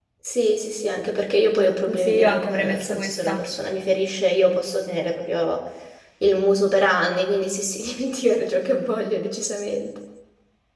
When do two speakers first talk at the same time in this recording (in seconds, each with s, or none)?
1.5 s